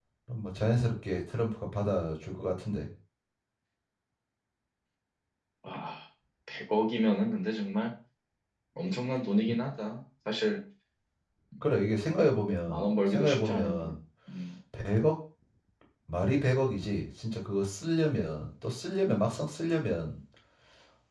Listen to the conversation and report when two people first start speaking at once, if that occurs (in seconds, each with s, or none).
12.7 s